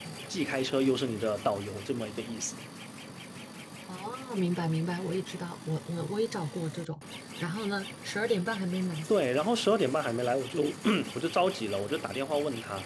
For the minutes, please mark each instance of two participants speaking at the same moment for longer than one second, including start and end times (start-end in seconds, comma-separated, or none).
none